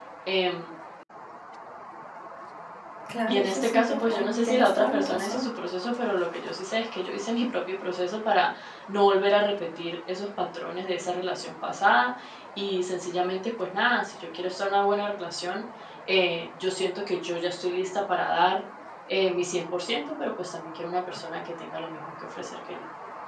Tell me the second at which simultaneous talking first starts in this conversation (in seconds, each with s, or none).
3.3 s